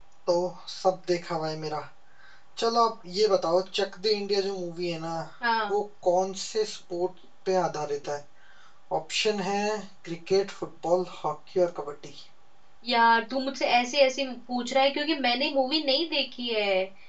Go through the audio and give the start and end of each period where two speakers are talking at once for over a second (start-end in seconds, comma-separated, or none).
none